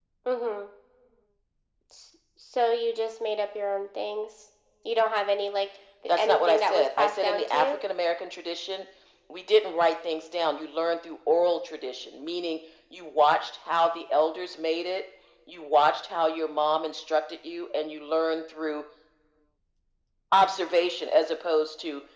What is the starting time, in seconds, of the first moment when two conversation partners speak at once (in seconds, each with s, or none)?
6.1 s